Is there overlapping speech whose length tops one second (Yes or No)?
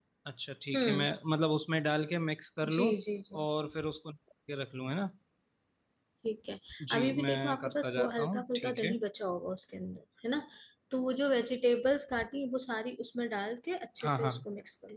Yes